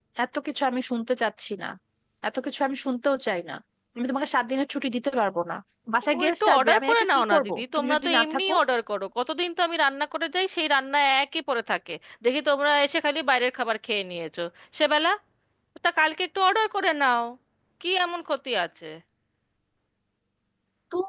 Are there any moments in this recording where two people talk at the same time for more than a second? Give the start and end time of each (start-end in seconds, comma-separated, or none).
6.2-8.5